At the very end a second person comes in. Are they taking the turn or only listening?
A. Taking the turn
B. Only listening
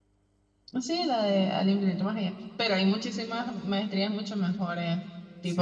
A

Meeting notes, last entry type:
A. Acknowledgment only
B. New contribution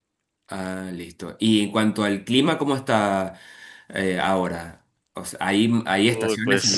A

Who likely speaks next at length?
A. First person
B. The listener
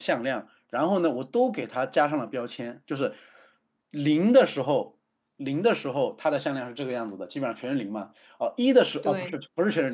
A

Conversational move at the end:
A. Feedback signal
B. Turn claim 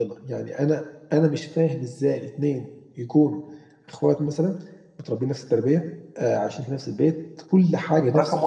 B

